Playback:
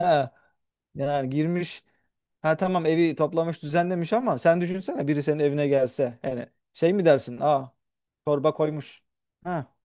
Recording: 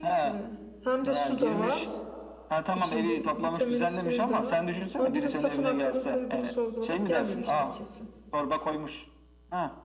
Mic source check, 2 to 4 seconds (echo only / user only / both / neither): both